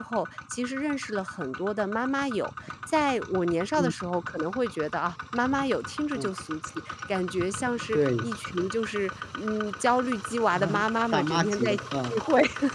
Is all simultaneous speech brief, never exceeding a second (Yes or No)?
No